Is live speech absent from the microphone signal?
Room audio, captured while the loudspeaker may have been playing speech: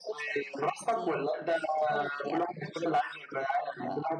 Yes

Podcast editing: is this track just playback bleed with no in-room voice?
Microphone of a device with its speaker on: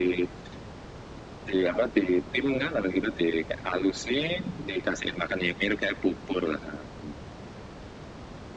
Yes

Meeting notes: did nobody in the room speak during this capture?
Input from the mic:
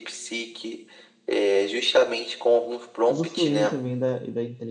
No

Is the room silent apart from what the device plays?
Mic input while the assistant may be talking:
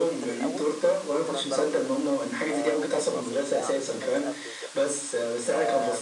No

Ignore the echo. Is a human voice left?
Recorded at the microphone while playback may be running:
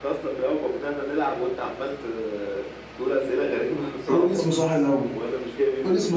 Yes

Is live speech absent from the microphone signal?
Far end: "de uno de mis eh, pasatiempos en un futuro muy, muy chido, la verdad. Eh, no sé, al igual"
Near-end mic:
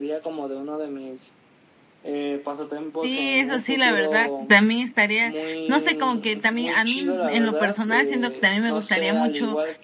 No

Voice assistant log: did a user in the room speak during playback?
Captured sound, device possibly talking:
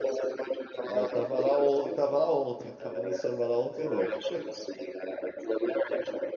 Yes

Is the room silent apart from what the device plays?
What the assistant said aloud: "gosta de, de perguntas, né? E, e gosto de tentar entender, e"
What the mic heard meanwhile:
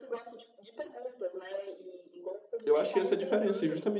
No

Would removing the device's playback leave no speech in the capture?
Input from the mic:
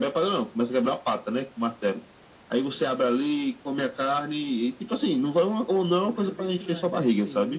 No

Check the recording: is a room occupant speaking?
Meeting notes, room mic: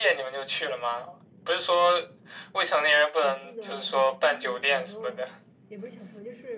Yes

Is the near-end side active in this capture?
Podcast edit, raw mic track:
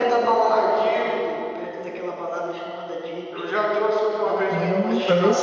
Yes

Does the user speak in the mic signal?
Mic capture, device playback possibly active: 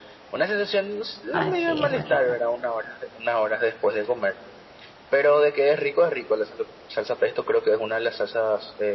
Yes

